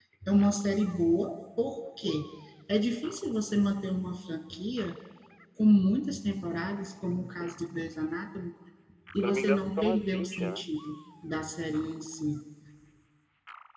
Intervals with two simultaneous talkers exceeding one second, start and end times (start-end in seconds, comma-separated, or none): 9.2-10.6